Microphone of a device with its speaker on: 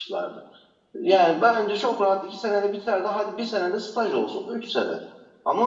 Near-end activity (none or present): present